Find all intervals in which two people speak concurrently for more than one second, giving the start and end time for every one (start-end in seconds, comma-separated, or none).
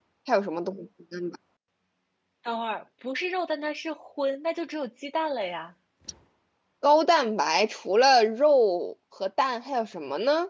none